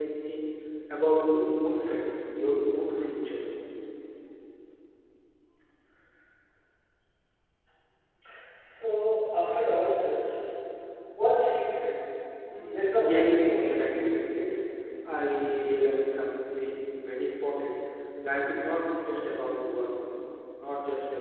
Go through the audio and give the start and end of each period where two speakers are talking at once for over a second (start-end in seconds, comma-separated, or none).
12.7-14.0